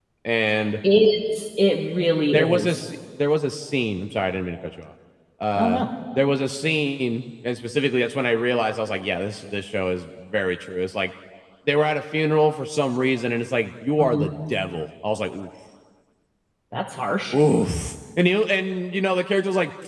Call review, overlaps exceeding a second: none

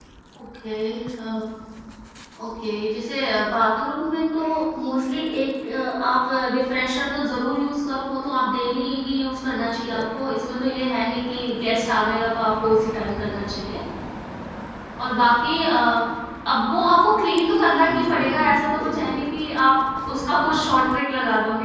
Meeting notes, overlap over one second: present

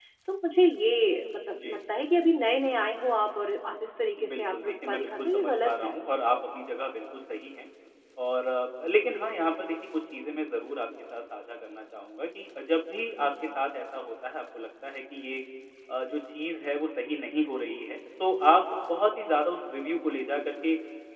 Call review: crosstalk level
present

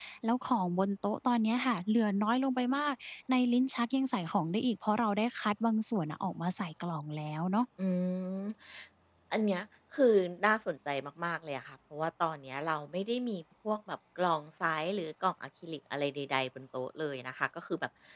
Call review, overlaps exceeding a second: none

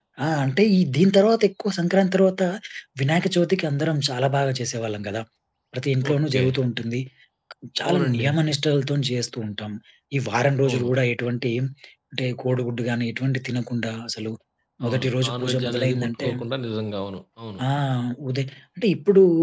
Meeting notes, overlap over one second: present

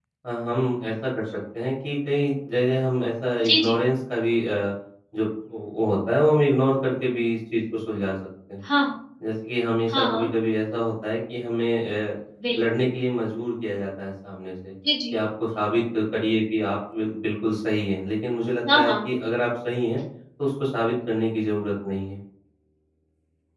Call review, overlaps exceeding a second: none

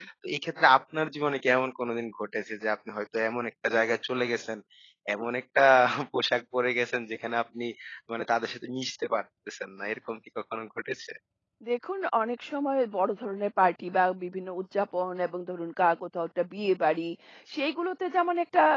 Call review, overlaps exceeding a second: none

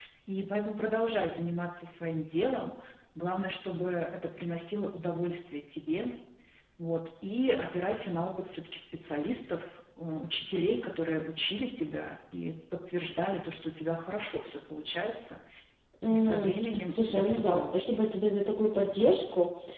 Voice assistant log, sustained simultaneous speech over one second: present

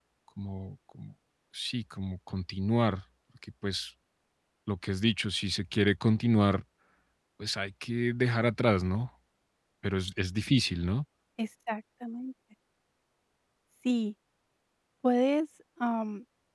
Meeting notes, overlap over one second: none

